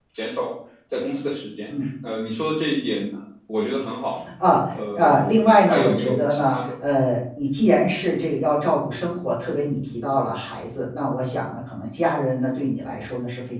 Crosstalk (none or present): present